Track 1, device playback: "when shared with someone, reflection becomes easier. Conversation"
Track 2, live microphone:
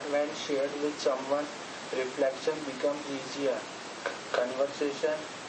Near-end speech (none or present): none